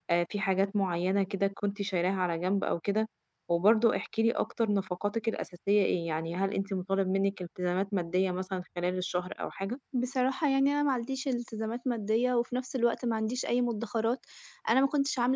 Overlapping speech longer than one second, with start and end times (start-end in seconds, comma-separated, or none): none